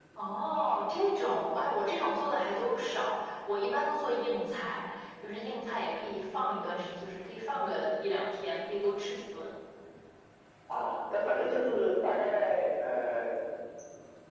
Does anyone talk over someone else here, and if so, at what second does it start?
none

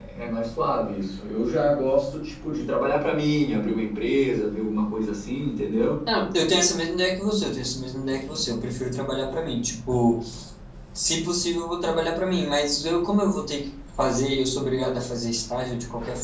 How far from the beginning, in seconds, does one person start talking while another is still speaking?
none

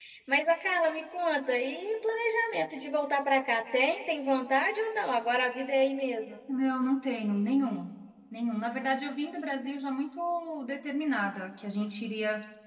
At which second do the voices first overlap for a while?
none

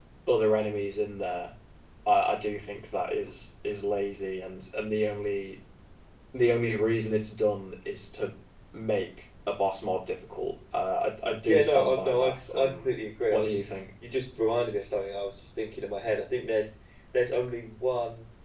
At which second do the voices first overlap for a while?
11.5 s

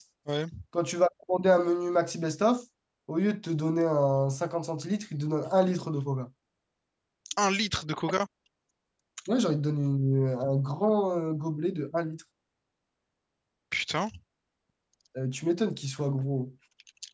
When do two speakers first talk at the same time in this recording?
none

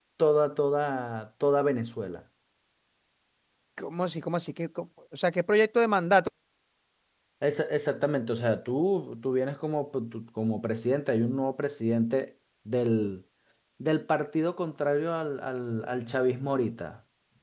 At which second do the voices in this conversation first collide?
none

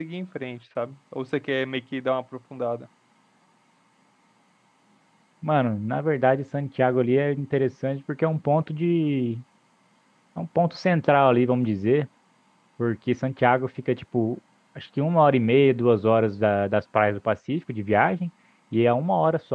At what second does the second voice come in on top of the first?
none

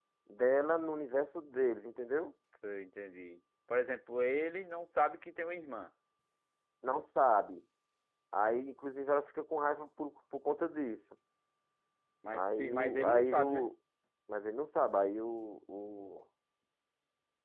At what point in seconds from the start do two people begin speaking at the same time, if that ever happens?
12.3 s

